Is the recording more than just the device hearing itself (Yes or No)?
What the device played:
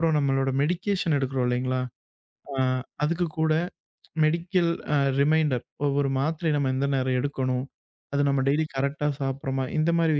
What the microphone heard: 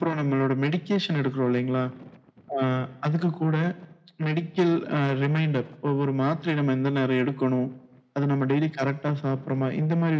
No